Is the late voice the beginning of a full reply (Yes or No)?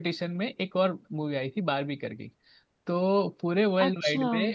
No